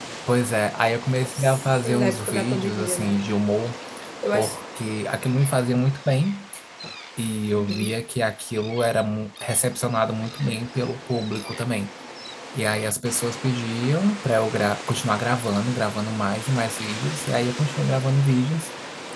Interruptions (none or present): present